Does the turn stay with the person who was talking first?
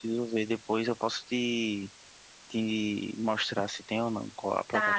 No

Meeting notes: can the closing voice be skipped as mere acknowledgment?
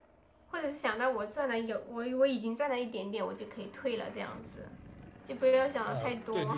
No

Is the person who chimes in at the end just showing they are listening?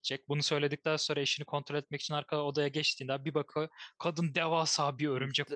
No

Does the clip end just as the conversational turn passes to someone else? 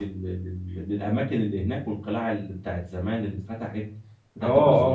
Yes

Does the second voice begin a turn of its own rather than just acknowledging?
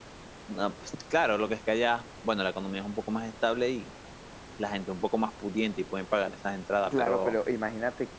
Yes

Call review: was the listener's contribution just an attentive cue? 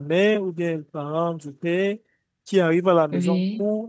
Yes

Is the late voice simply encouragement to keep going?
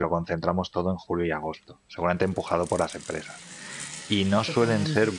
Yes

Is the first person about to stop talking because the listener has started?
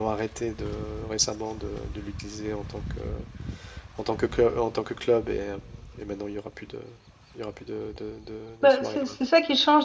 Yes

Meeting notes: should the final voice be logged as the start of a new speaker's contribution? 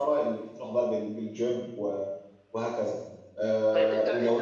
Yes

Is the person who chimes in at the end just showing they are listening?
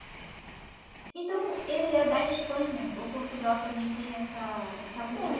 No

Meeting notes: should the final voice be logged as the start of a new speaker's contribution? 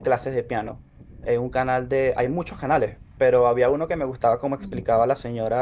No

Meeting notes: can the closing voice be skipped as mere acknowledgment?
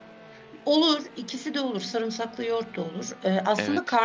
Yes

